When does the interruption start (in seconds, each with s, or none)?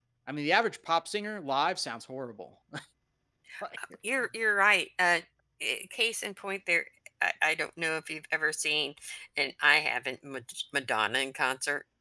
none